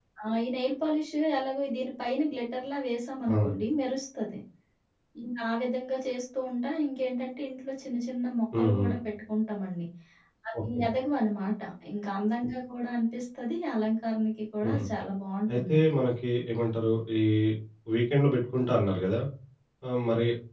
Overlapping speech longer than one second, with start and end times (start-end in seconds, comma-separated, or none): none